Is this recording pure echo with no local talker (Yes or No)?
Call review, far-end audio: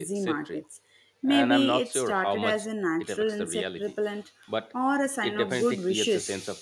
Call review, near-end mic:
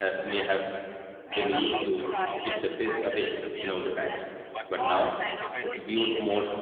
No